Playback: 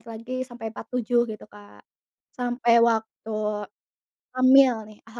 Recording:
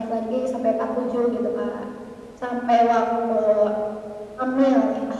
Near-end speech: none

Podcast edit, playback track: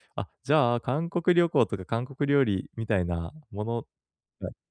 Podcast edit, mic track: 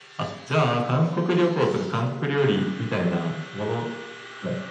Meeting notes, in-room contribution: none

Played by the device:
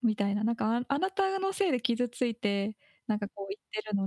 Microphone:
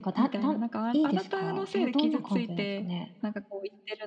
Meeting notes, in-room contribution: present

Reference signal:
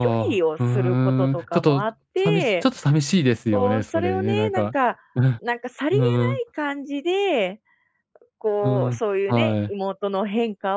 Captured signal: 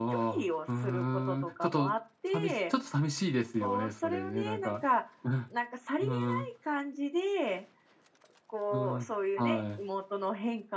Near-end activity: none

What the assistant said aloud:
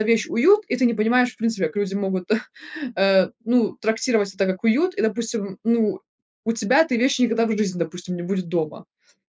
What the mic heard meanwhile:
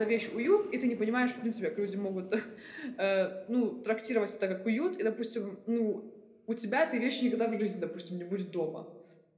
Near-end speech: none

